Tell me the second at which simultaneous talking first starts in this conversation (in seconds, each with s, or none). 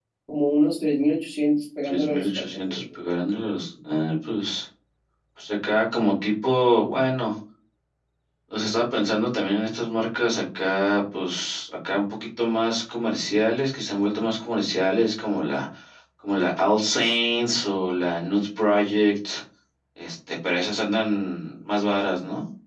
1.8 s